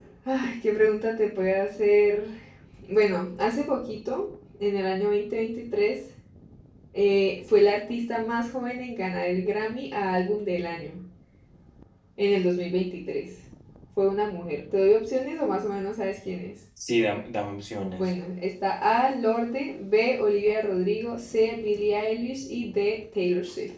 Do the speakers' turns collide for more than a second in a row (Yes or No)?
No